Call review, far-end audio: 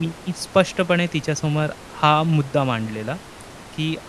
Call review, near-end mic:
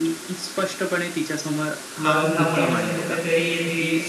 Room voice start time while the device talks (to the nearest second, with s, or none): 2 s